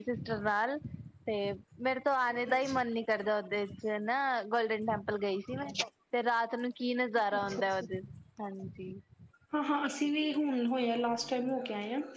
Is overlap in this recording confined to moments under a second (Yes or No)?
Yes